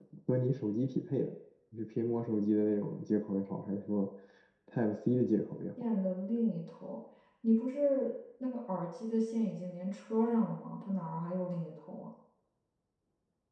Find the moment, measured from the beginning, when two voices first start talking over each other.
none

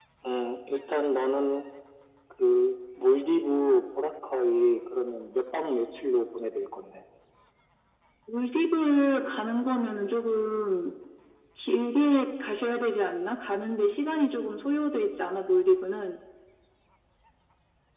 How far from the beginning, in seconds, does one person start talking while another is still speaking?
none

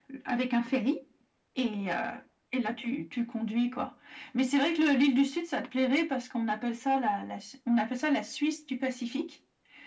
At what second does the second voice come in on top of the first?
none

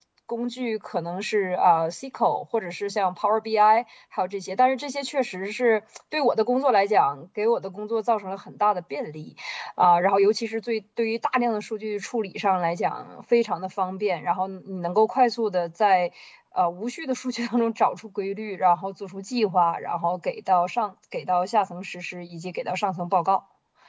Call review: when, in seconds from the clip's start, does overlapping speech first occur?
none

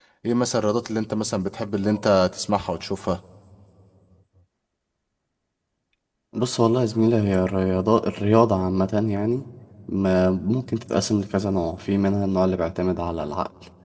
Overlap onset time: none

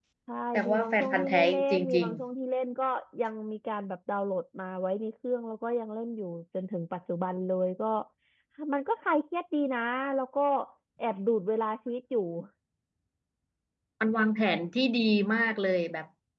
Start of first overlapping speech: 0.5 s

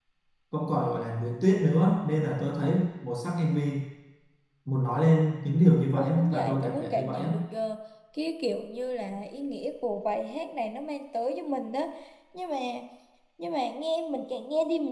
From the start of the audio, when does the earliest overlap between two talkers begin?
6.0 s

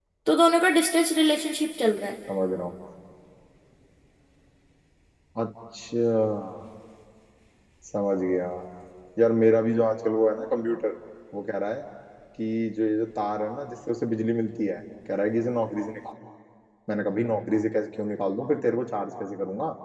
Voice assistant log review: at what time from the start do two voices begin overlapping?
none

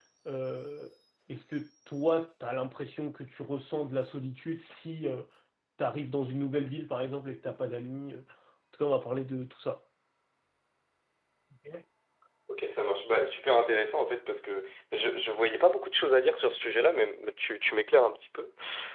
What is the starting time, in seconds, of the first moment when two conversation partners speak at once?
none

